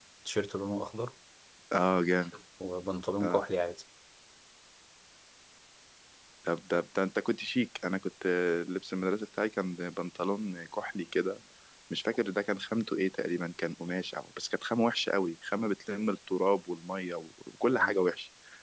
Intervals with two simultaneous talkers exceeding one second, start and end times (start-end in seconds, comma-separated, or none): none